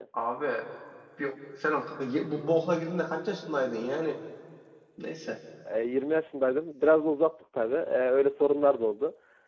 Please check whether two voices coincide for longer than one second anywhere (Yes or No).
No